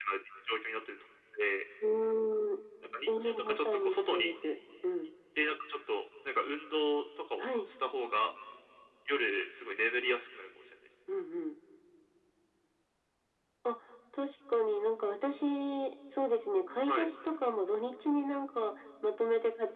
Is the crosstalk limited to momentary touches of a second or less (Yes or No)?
No